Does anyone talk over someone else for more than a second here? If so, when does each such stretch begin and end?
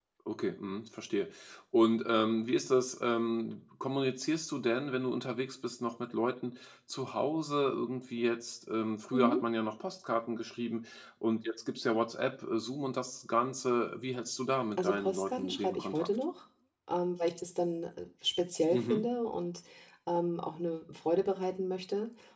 14.8-16.1

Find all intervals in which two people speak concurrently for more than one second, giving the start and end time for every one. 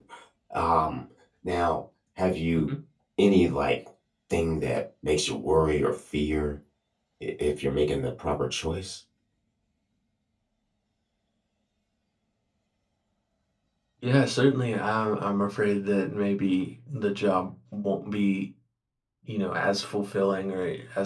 none

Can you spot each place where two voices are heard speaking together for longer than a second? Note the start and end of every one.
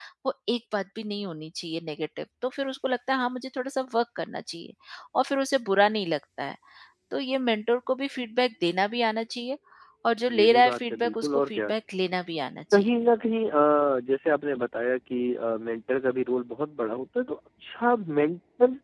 10.4-11.7

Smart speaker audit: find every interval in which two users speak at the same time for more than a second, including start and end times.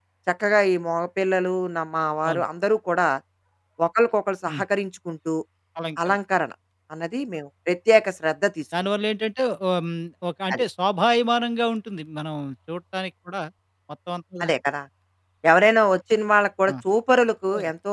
none

